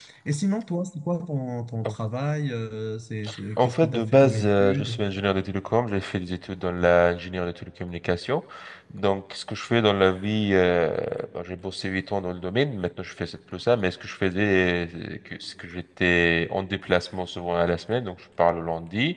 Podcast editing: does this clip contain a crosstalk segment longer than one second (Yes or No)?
Yes